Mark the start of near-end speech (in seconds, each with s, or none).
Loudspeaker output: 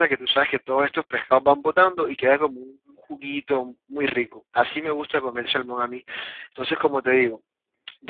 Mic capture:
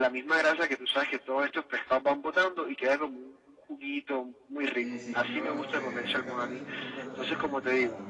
4.8 s